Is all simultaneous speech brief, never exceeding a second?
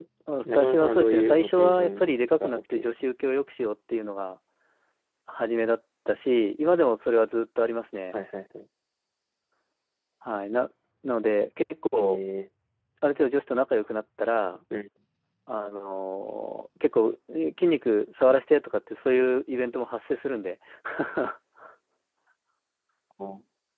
No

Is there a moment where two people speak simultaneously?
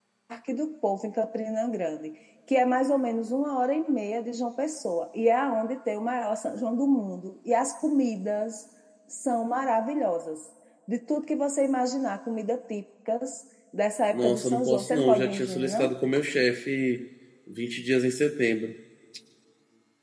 Yes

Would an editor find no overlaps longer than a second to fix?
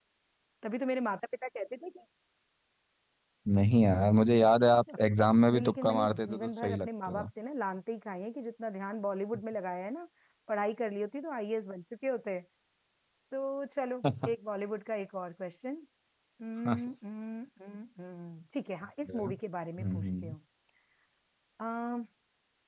No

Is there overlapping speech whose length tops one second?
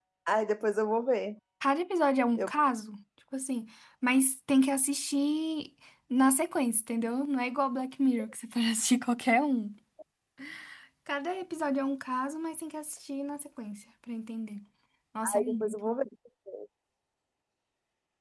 No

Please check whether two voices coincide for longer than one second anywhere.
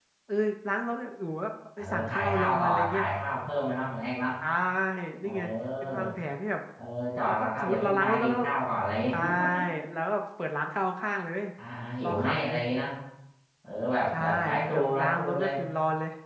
Yes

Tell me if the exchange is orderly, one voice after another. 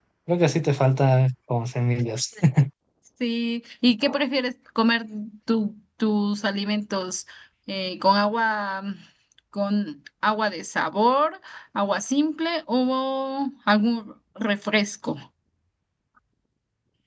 Yes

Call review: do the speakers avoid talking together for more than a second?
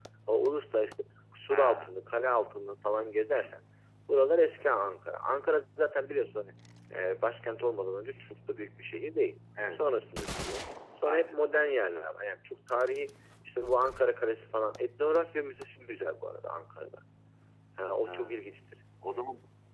Yes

